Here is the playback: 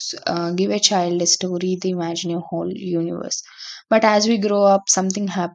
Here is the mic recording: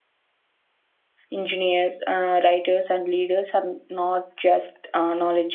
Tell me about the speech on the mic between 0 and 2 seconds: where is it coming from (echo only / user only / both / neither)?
user only